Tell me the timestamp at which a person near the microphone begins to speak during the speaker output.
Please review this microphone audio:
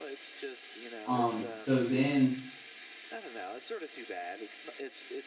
1.1 s

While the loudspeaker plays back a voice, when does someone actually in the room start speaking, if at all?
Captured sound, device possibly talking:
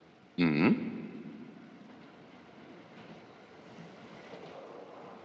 0.4 s

